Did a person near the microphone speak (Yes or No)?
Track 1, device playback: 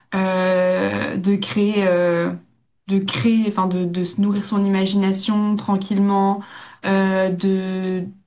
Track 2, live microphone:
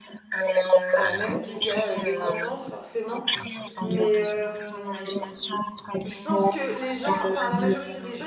Yes